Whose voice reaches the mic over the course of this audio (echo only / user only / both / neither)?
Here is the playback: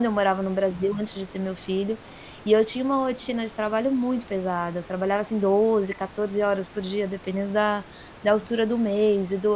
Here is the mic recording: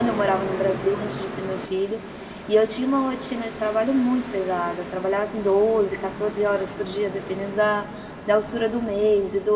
echo only